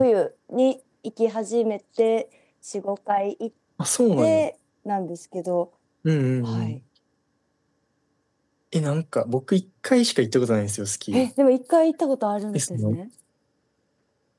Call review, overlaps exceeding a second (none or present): none